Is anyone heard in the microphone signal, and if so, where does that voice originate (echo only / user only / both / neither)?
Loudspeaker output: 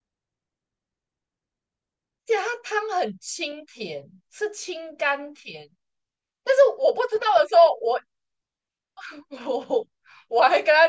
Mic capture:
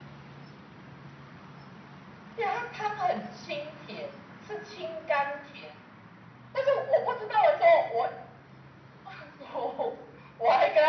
echo only